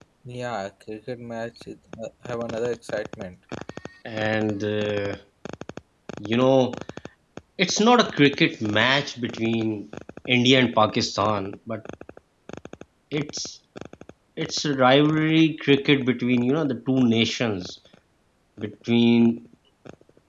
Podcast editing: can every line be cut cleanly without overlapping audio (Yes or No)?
Yes